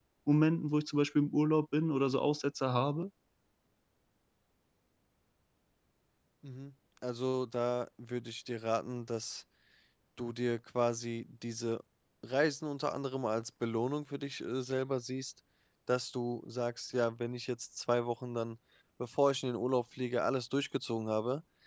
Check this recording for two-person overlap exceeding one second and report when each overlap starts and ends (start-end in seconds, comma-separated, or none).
none